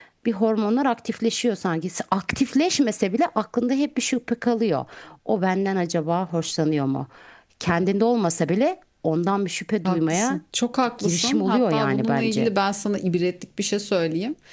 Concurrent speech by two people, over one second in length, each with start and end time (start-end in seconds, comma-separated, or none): 11.0-12.5